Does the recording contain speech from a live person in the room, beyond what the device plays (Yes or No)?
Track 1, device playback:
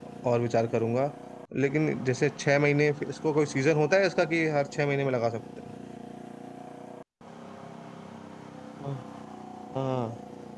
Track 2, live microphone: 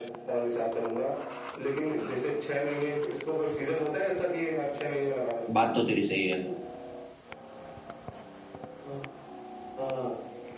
Yes